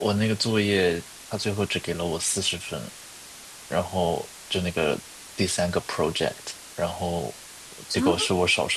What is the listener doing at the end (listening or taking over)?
listening